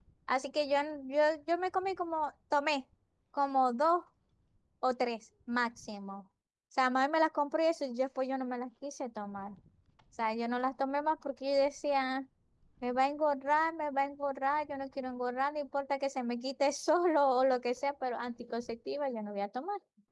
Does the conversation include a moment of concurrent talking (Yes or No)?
No